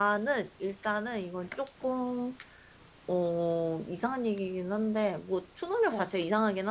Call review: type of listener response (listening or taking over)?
listening